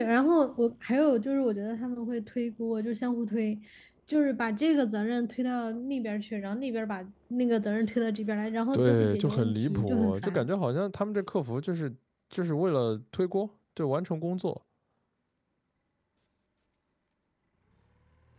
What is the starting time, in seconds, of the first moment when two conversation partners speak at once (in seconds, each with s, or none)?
8.7 s